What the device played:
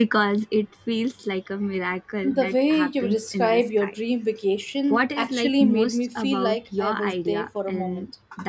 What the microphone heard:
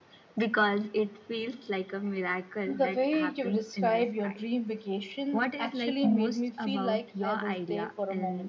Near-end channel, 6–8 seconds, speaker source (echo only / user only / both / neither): echo only